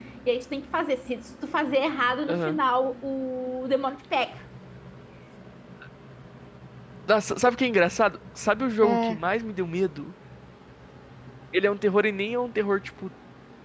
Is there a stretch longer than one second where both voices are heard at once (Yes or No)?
No